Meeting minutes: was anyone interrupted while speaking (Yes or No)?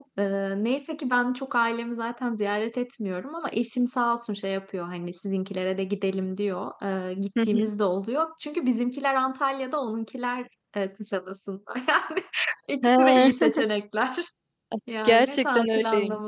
Yes